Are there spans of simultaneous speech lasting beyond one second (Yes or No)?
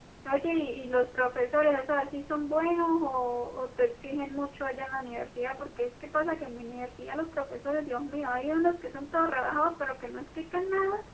No